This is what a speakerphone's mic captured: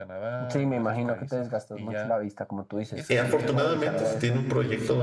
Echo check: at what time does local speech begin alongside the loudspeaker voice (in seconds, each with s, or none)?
3.1 s